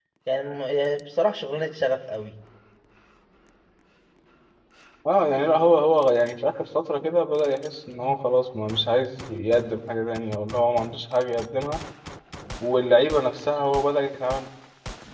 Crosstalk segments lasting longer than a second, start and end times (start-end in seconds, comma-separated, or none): none